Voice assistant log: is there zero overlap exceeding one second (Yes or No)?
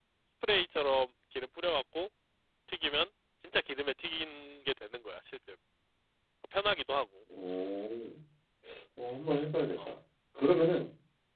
Yes